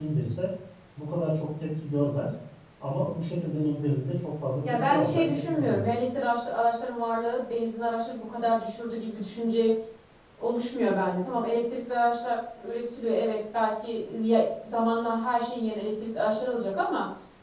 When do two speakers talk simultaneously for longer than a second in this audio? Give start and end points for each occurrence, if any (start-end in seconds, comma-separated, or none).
4.6-5.8